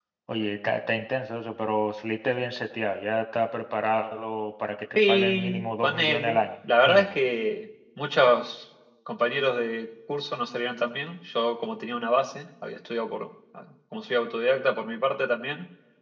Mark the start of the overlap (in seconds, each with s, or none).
5.0 s